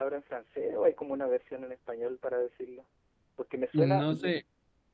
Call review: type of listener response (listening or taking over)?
taking over